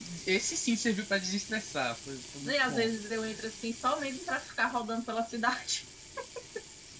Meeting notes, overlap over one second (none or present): none